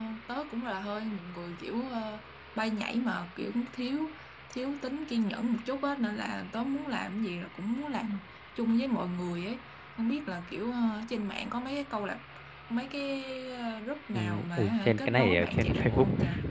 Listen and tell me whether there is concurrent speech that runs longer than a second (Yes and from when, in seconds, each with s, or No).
Yes, from 14.1 s